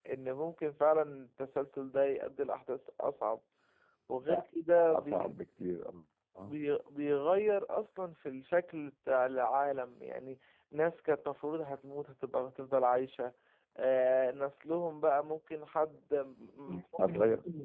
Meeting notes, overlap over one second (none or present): none